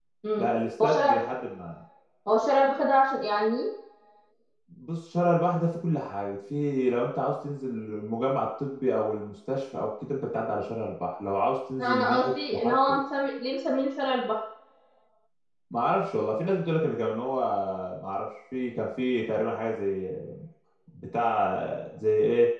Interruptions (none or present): present